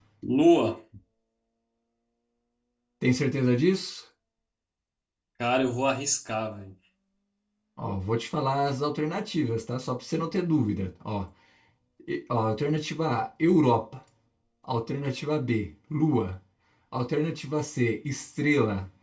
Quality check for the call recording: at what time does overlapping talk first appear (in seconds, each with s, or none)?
none